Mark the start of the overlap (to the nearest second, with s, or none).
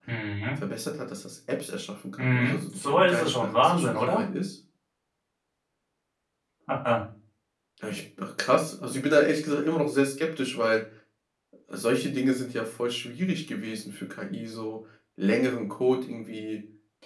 2 s